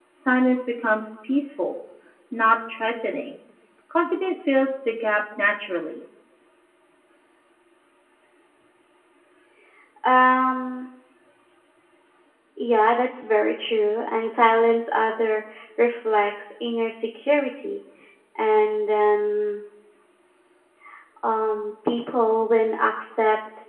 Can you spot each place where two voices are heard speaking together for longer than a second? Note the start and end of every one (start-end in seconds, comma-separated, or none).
none